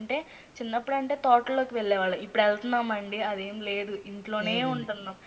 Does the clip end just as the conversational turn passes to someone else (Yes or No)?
No